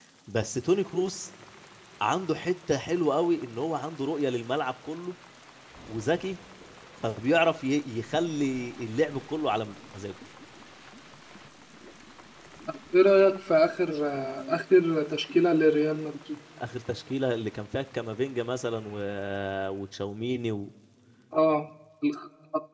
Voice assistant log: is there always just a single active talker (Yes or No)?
Yes